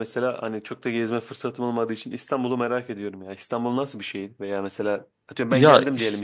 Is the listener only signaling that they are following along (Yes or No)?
Yes